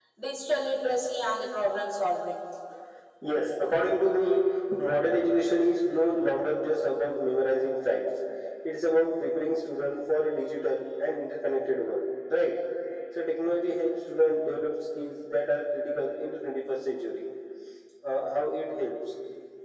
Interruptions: none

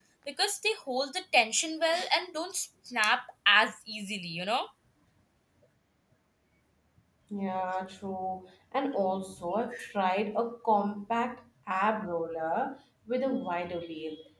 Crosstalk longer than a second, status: none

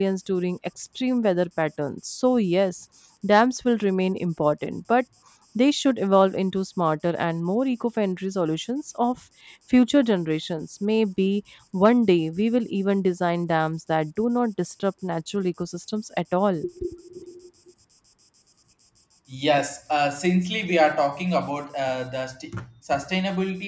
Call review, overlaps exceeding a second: none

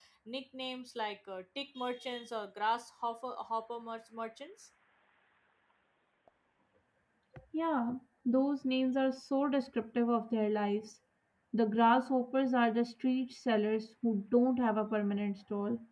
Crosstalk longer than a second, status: none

